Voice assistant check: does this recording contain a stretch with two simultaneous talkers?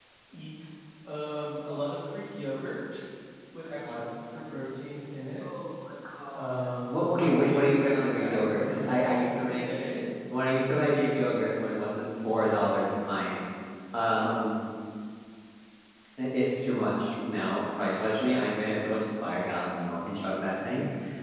Yes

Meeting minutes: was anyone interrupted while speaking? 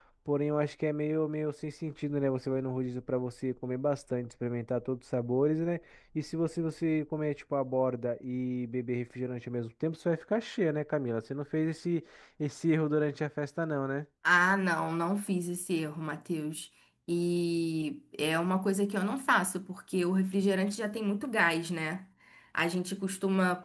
No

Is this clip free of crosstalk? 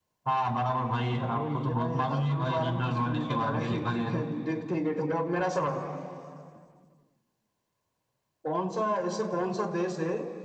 No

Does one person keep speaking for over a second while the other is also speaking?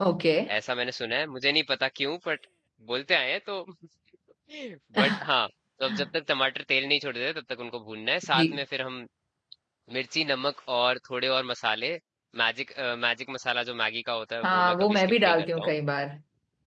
Yes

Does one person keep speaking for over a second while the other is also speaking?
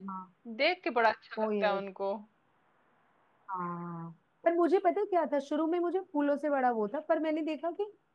No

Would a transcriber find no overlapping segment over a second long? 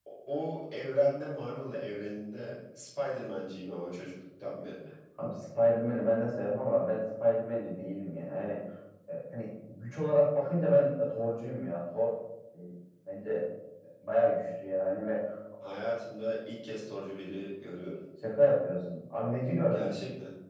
Yes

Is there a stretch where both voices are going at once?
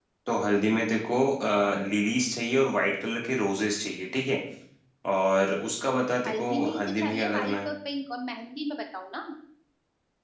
Yes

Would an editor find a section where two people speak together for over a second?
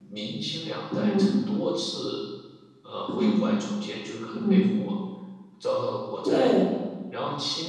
No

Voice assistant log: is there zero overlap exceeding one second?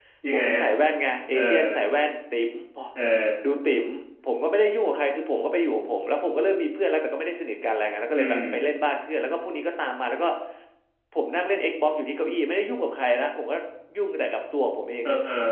Yes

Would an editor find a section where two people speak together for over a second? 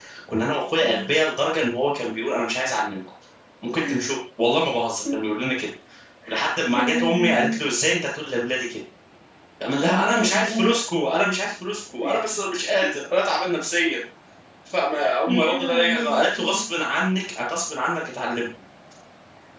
Yes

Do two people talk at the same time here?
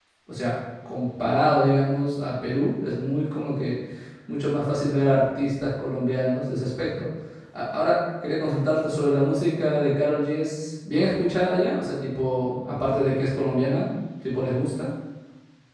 No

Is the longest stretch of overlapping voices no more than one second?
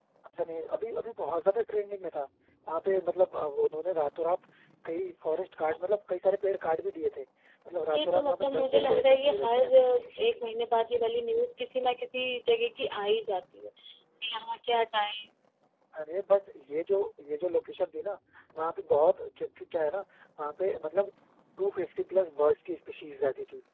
No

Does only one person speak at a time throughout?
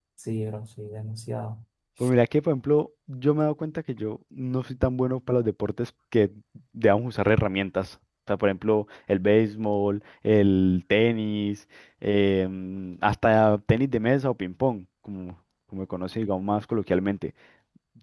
Yes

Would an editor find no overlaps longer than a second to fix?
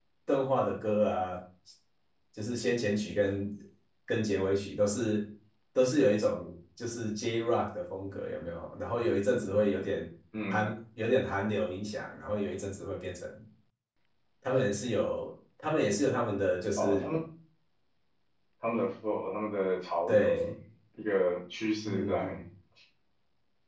Yes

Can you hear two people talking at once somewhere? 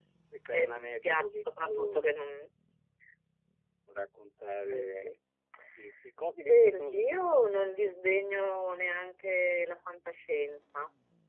Yes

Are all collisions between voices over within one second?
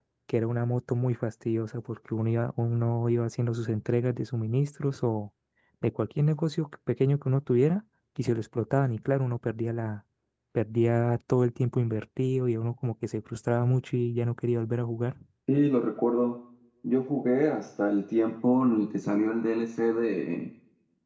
Yes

